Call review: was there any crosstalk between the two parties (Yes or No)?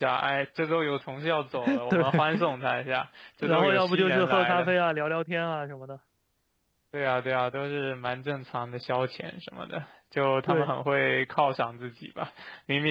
Yes